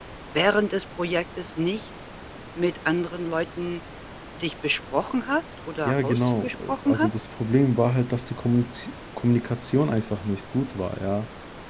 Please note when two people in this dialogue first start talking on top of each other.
5.8 s

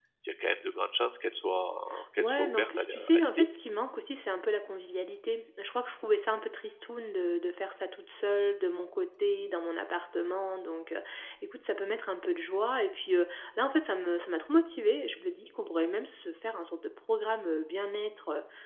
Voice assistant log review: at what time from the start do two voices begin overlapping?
2.2 s

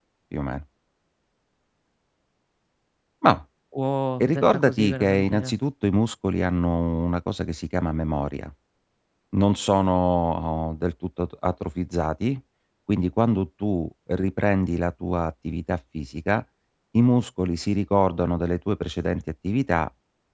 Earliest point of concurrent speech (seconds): 4.2 s

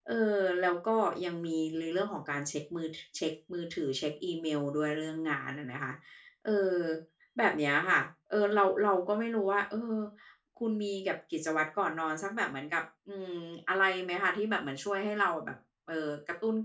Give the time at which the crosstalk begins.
none

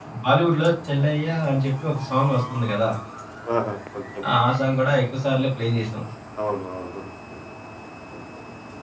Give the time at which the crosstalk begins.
none

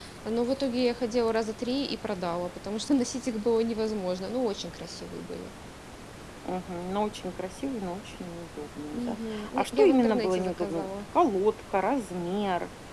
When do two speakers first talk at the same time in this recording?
8.9 s

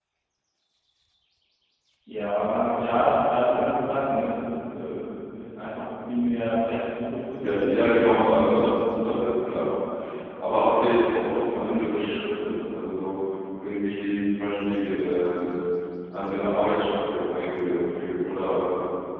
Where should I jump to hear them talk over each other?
7.4 s

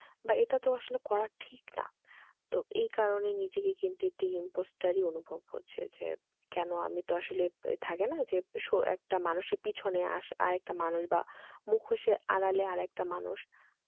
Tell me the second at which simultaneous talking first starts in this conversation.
none

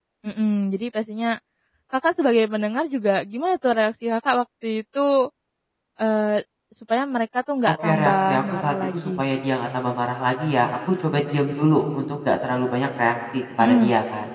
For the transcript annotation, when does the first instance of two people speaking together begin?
7.8 s

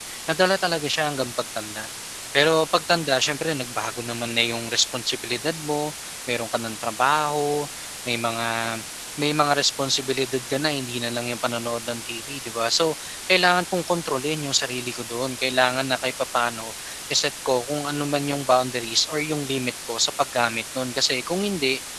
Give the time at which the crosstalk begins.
none

